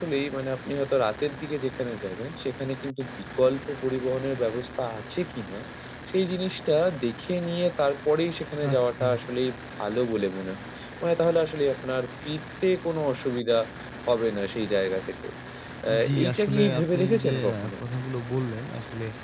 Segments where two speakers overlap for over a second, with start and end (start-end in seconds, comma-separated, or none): 16.0-17.7